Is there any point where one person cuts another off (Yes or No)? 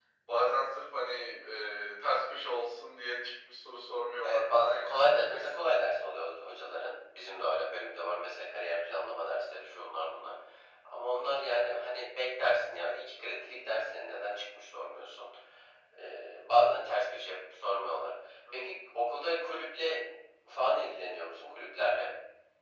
Yes